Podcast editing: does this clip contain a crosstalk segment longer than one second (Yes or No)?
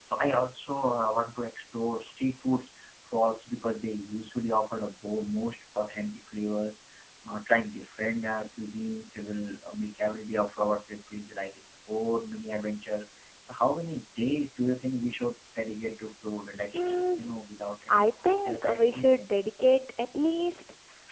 Yes